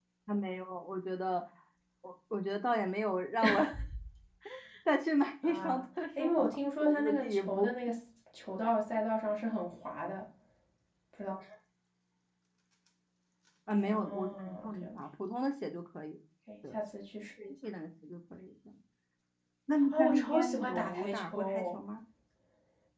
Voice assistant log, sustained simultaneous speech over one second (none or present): present